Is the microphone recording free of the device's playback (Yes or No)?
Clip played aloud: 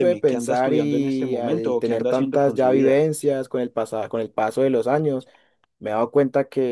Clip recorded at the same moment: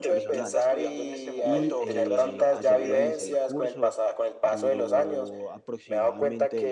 No